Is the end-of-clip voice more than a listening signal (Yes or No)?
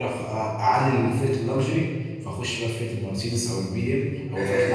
Yes